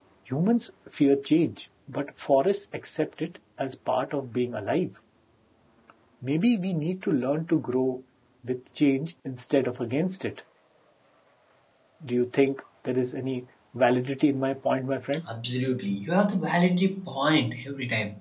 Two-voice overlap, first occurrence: none

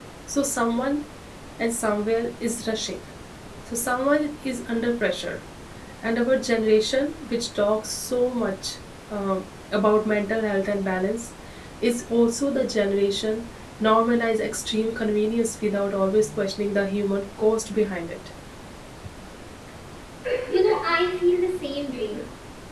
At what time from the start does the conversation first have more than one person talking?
none

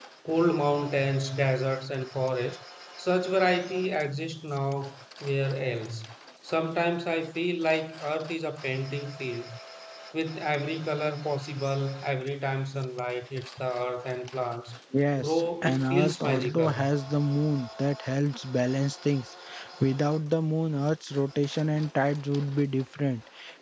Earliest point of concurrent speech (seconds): 15 s

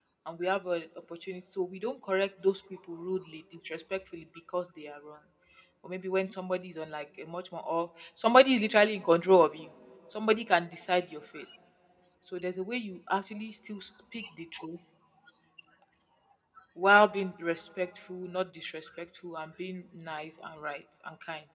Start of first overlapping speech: none

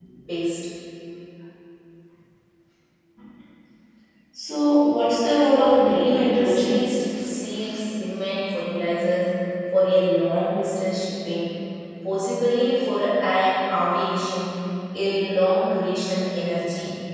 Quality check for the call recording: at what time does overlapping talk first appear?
6 s

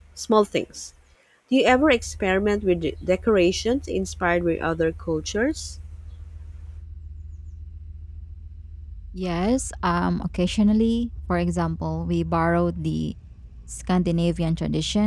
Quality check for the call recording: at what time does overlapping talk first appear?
none

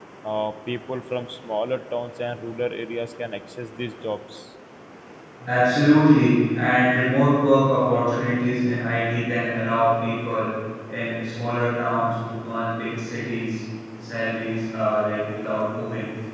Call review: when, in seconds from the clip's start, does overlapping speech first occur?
none

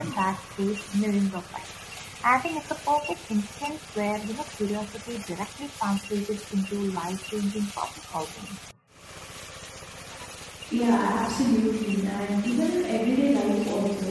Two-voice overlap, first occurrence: none

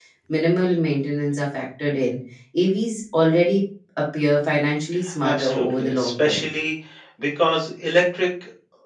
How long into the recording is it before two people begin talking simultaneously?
5 s

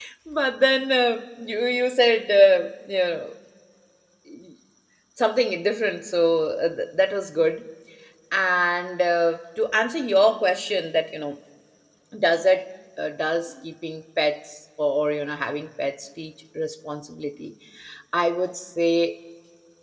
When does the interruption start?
none

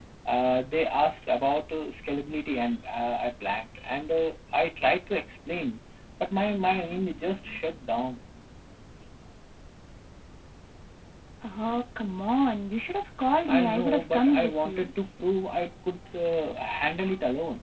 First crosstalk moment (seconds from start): 13 s

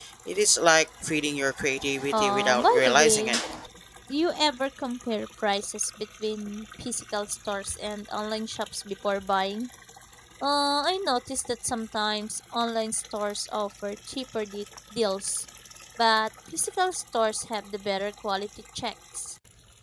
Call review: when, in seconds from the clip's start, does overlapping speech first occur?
2 s

